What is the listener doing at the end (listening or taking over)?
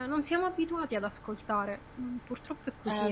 taking over